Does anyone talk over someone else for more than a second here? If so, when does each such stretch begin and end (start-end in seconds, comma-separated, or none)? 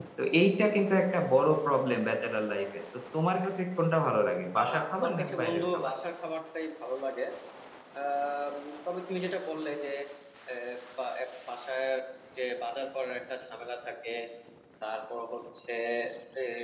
4.5-5.9